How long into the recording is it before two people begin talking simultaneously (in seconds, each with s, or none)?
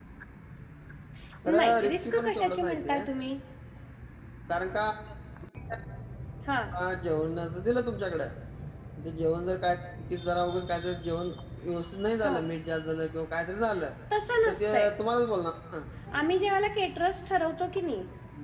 1.6 s